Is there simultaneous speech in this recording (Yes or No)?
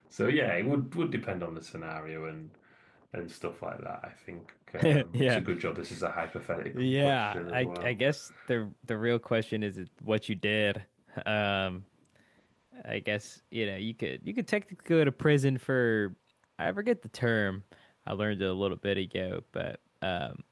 Yes